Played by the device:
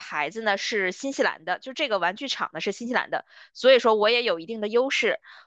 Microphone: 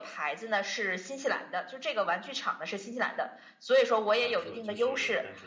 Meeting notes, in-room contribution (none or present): present